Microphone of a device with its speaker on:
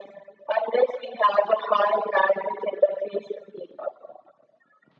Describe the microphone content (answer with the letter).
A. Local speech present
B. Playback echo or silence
B